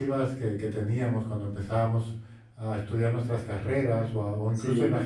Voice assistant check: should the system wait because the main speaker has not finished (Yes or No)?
Yes